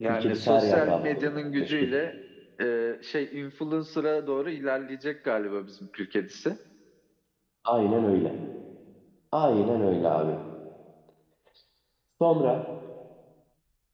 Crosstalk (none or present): present